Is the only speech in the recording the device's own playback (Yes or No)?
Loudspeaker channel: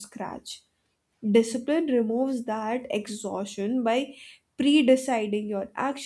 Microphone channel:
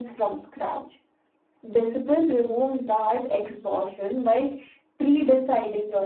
Yes